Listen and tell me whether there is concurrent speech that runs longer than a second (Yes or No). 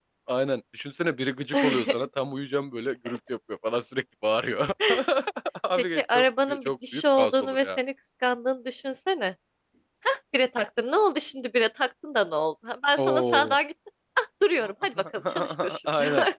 Yes